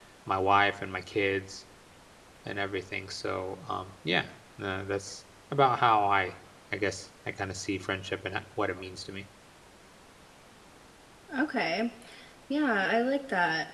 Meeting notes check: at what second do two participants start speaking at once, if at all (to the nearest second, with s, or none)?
none